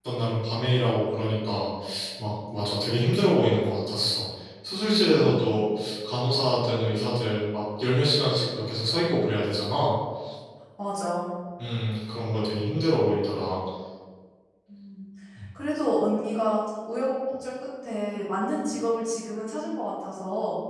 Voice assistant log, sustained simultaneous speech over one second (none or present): none